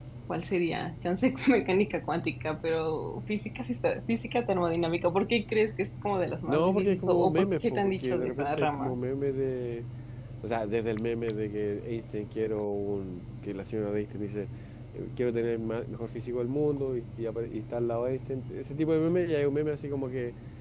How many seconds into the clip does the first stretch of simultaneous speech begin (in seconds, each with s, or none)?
6.5 s